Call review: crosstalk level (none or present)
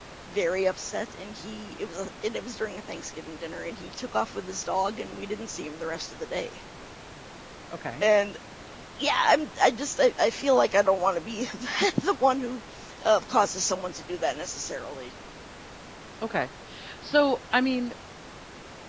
none